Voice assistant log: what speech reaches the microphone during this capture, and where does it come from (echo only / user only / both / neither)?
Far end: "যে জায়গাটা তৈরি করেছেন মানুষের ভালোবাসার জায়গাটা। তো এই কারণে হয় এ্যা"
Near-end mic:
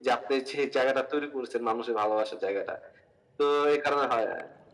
echo only